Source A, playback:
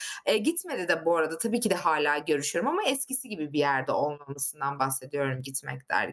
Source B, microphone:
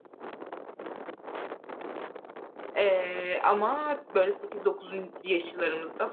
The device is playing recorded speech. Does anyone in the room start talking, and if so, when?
2.8 s

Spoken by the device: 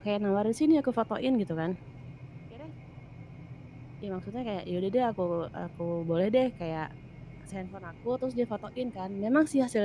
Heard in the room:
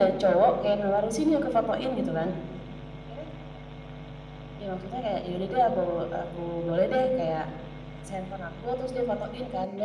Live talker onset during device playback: none

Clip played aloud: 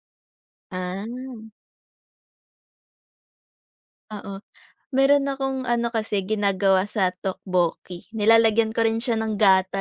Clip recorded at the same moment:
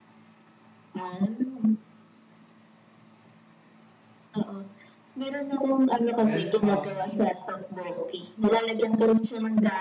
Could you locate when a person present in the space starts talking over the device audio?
6.2 s

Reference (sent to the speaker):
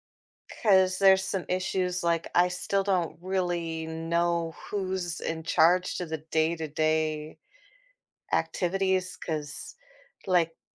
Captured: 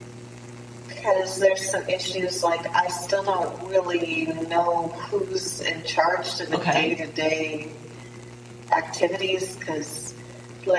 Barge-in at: 6.5 s

